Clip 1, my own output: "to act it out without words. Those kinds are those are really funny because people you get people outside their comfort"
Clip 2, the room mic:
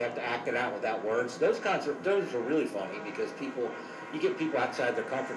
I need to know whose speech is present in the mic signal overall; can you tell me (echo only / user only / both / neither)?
echo only